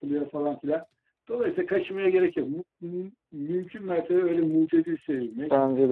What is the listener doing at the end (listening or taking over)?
listening